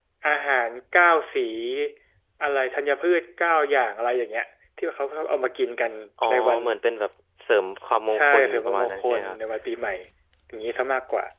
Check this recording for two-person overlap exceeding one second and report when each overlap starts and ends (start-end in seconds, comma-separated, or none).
8.1-9.4